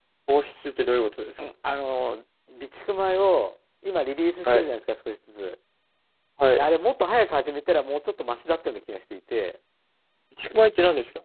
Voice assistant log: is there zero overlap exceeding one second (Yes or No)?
Yes